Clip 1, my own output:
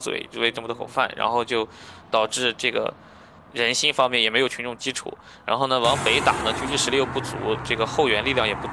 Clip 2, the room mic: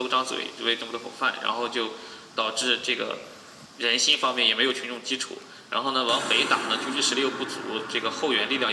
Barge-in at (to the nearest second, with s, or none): none